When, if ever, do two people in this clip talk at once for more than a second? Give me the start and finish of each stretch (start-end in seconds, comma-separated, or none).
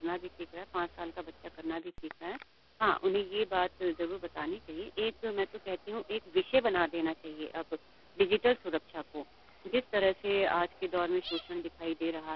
none